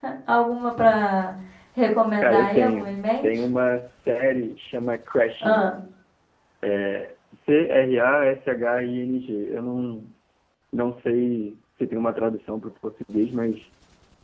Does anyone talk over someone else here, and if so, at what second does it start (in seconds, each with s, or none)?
2.2 s